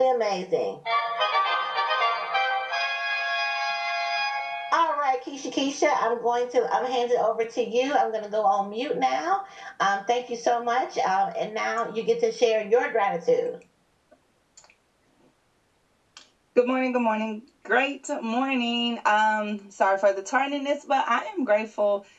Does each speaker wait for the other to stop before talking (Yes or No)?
Yes